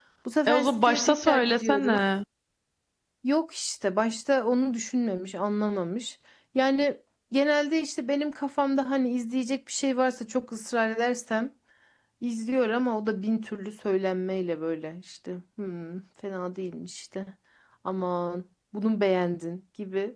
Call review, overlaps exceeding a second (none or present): present